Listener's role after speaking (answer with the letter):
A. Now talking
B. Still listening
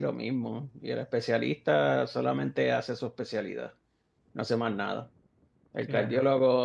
B